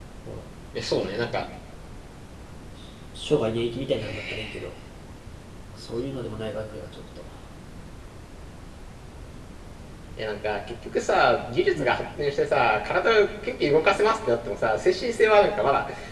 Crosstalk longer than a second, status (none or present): none